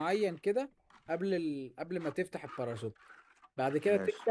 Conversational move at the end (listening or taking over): listening